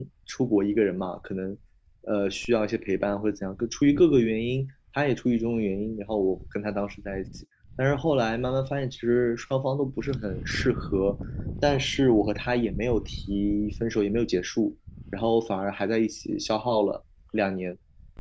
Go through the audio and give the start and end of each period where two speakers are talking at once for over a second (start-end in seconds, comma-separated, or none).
none